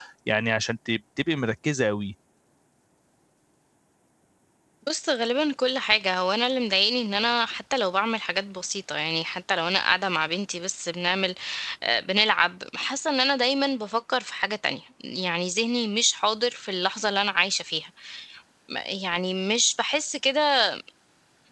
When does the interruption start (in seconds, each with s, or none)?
none